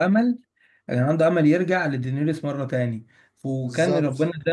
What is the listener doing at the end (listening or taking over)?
listening